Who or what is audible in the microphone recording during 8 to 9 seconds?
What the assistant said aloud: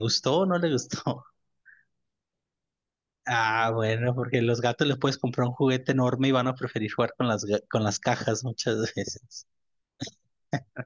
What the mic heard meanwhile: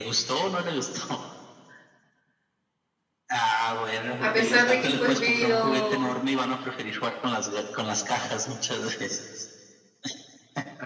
echo only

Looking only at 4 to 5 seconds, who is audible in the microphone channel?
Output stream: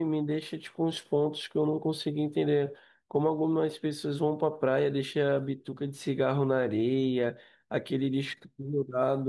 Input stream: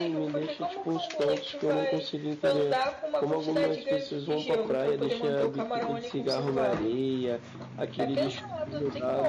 both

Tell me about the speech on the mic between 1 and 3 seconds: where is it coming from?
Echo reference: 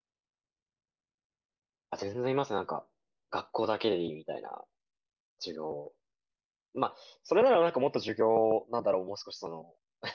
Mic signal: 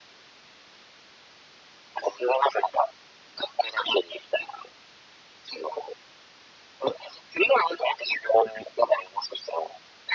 echo only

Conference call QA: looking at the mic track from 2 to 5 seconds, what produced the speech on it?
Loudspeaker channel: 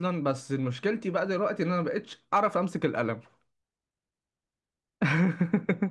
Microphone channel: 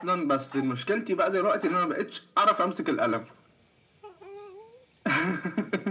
echo only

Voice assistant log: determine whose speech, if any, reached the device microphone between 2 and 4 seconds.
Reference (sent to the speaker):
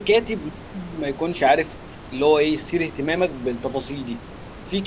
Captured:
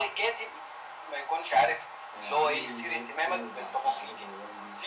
both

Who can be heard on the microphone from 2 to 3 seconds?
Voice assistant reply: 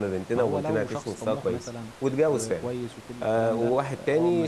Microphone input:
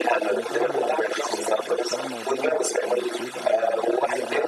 both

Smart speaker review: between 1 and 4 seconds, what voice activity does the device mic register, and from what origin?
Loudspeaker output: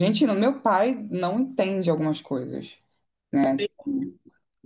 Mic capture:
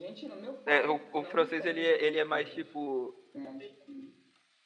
both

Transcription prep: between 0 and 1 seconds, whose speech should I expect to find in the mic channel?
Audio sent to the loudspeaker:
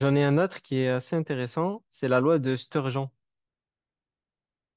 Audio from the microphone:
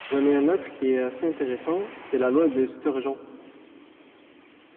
echo only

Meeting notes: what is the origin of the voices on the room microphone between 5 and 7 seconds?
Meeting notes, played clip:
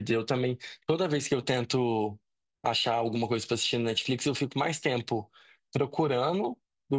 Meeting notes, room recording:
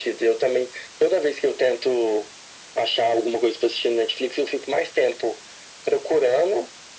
echo only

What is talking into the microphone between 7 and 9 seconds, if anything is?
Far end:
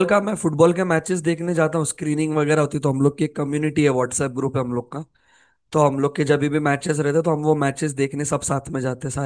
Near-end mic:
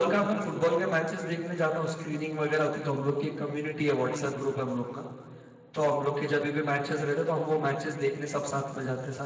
echo only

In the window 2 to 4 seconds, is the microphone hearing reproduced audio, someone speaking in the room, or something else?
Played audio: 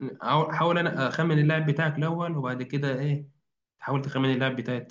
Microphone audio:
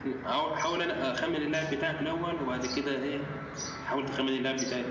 echo only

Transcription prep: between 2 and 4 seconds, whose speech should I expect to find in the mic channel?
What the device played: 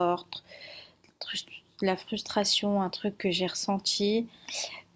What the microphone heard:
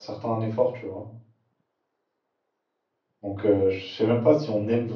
user only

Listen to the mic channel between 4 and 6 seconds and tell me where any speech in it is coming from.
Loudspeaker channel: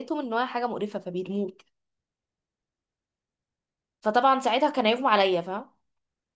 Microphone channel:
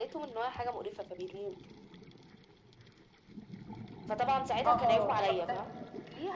both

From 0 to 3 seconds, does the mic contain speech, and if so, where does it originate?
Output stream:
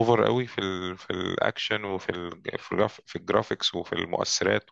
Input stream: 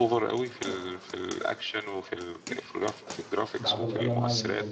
echo only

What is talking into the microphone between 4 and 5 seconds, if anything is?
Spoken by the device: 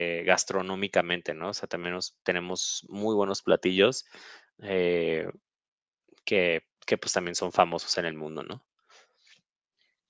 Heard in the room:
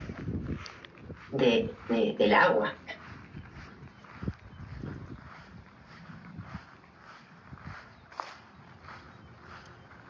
neither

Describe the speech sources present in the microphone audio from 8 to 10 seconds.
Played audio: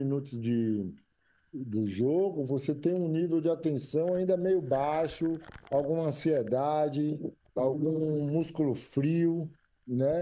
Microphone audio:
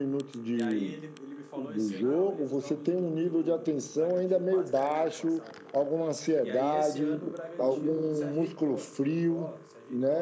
both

